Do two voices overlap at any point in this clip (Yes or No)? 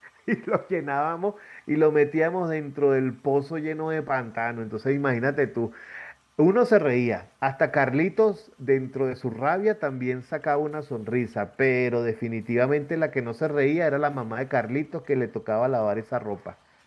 No